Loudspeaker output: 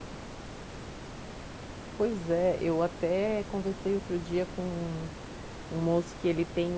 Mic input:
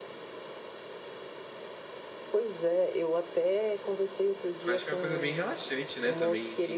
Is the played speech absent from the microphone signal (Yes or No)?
No